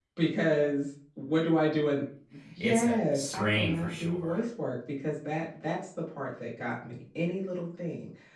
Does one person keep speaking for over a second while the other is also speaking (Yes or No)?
Yes